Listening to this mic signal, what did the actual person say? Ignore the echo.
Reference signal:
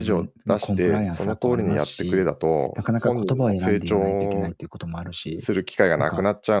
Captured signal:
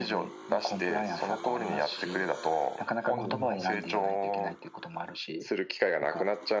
うんうん。

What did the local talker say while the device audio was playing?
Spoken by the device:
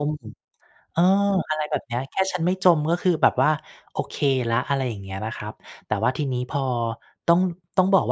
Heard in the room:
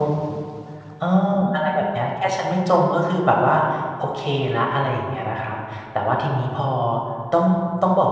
none

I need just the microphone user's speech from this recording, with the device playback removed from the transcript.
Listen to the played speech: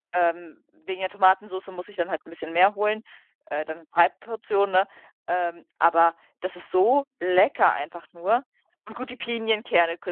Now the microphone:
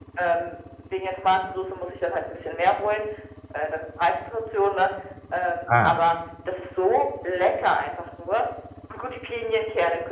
ah.

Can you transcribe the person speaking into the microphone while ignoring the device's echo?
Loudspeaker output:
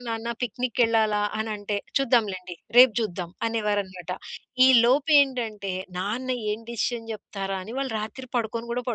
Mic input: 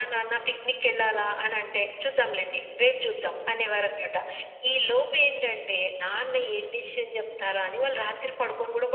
none

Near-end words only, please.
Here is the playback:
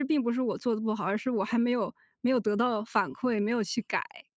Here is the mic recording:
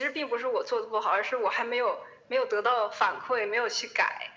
none

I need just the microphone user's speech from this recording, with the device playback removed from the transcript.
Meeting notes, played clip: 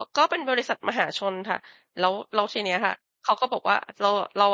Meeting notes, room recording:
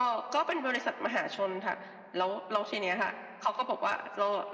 none

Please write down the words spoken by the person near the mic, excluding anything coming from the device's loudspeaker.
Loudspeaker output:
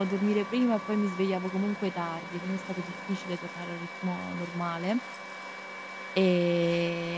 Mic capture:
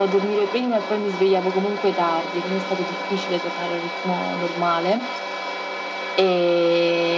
none

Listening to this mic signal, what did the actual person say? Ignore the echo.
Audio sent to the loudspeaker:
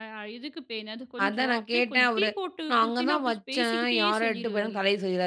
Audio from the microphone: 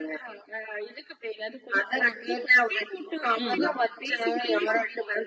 ம்.

